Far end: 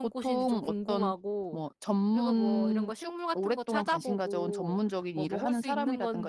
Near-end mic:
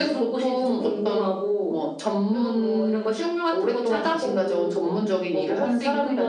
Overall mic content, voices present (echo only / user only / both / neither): echo only